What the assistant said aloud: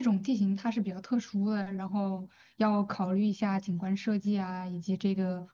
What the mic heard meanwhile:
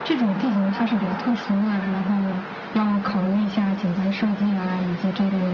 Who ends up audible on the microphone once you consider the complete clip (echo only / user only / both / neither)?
echo only